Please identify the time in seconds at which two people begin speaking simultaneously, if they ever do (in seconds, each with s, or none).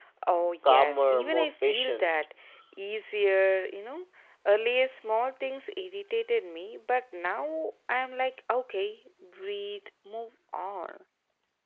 0.6 s